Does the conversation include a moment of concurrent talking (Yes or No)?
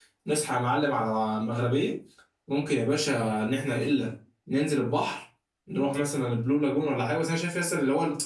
No